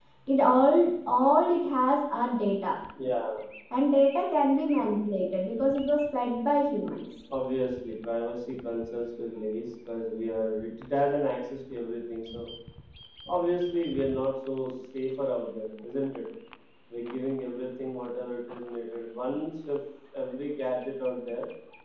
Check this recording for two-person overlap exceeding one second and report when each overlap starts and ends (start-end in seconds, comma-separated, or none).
none